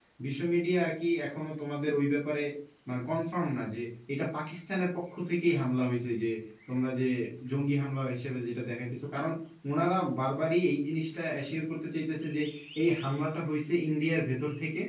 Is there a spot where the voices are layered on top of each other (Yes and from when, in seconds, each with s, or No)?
No